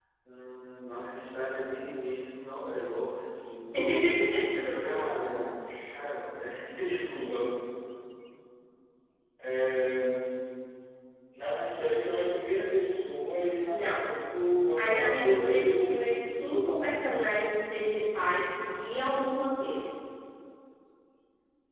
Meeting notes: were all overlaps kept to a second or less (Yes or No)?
No